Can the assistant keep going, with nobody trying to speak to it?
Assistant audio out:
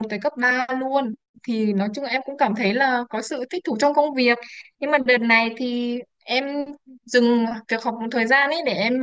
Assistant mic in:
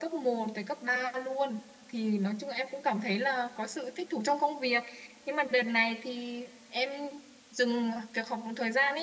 Yes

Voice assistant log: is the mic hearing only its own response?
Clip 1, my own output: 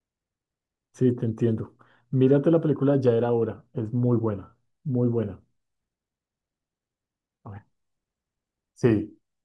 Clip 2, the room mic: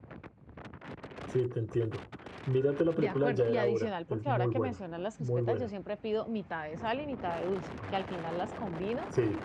No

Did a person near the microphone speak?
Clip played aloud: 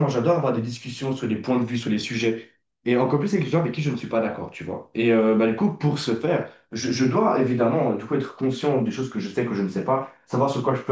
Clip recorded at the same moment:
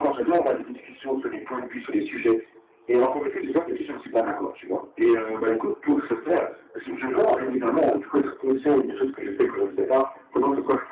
No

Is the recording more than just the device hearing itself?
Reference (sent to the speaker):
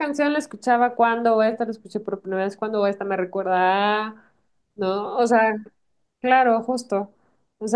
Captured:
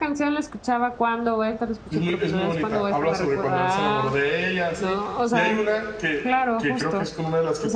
Yes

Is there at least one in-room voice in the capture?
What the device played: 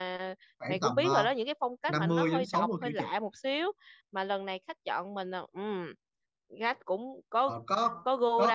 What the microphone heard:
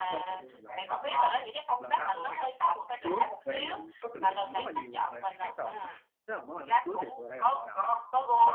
Yes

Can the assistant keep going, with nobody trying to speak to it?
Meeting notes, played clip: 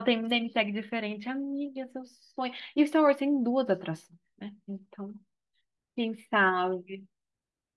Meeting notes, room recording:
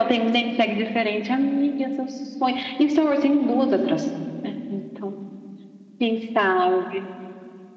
Yes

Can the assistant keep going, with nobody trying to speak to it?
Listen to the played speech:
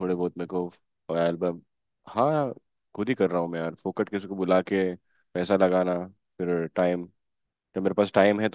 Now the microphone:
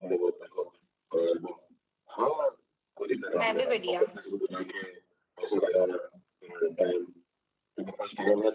No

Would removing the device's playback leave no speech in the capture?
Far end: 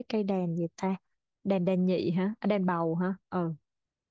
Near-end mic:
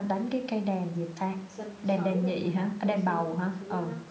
No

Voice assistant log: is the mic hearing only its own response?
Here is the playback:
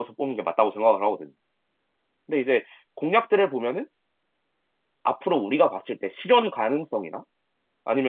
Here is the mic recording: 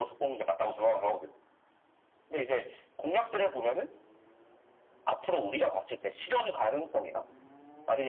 Yes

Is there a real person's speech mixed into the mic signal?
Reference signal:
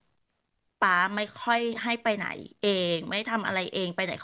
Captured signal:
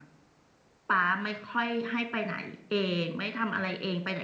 No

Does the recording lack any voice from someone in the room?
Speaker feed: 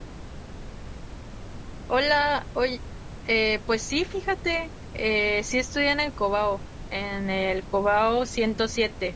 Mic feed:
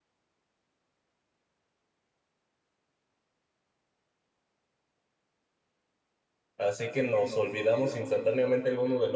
No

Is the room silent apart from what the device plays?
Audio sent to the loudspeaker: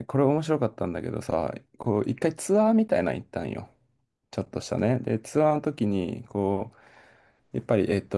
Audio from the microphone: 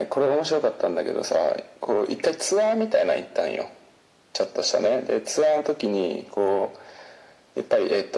Yes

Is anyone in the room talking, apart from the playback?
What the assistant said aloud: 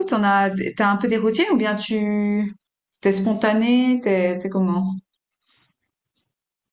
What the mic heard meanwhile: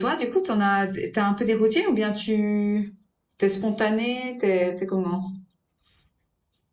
No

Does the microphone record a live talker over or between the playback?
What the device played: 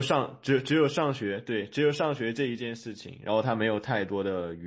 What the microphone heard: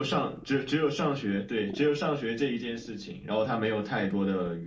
No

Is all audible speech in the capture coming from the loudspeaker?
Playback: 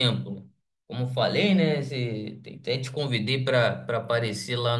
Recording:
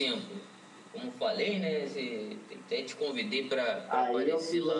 No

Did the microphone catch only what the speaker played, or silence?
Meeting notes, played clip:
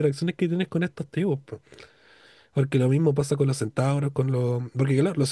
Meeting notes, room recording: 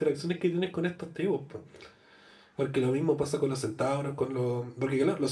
Yes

